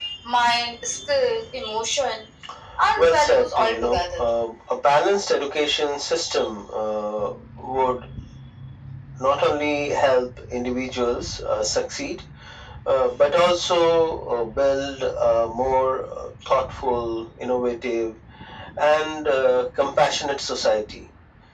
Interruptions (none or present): present